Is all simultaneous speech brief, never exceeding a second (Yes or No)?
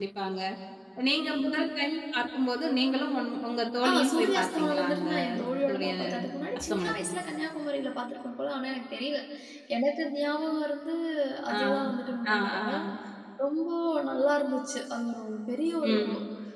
No